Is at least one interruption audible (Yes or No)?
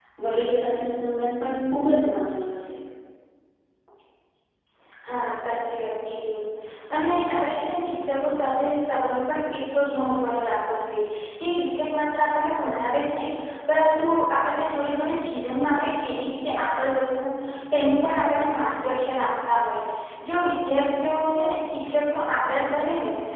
No